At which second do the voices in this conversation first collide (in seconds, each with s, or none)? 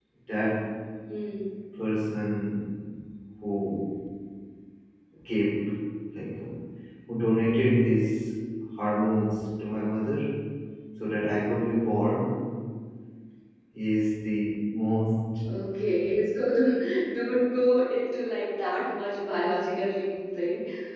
none